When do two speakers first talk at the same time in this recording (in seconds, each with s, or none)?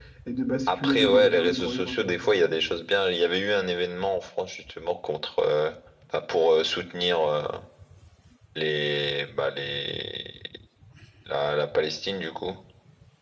0.7 s